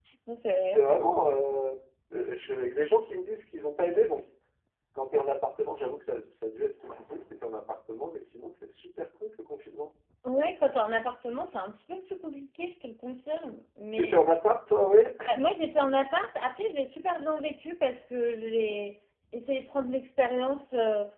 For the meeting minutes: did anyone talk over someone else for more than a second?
No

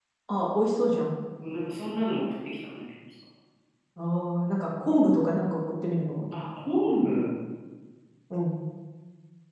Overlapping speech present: No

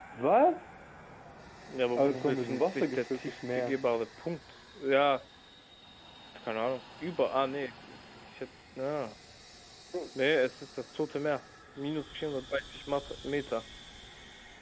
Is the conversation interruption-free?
No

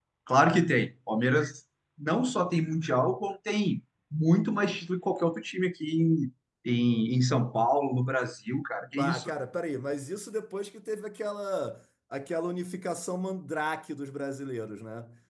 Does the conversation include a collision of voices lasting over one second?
No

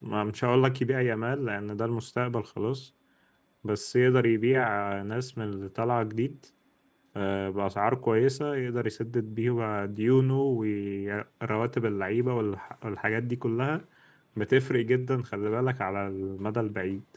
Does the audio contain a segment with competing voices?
No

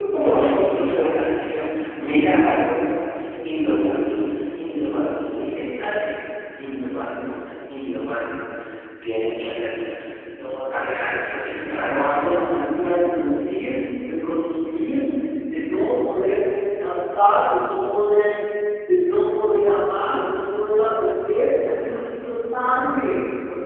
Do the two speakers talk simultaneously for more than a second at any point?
Yes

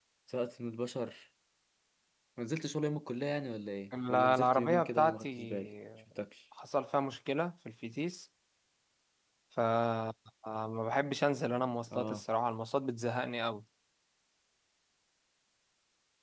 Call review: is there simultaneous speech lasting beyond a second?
Yes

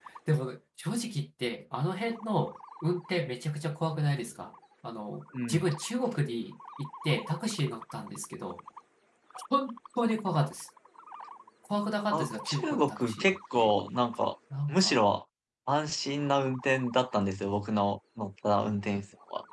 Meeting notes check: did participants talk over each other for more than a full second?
Yes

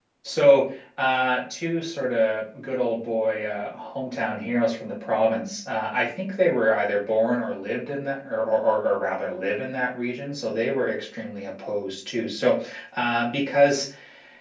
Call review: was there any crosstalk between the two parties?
No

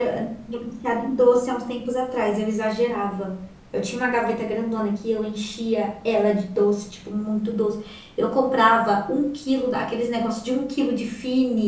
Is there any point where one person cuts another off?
No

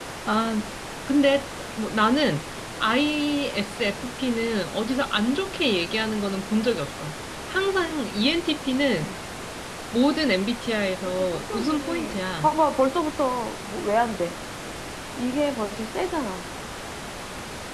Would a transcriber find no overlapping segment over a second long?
No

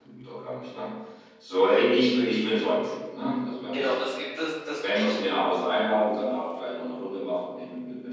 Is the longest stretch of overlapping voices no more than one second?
Yes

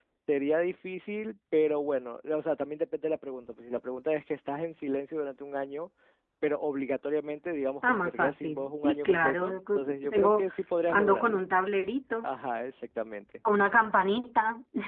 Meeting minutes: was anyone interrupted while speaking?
Yes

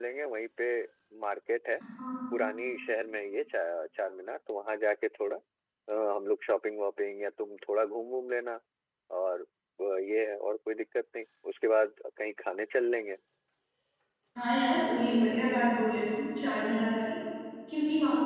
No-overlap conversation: Yes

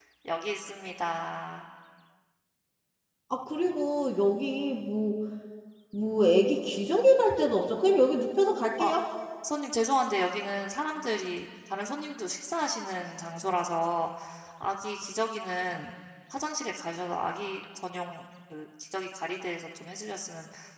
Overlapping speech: No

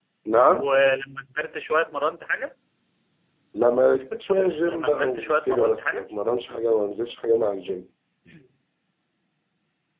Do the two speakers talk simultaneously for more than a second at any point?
Yes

